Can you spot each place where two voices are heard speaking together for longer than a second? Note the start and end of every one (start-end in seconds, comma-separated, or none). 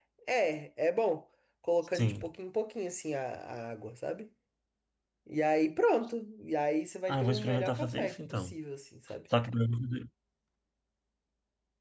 7.1-8.5